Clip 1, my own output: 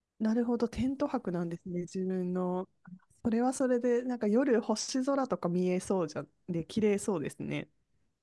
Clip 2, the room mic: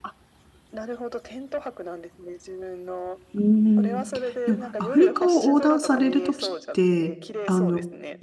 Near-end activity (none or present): present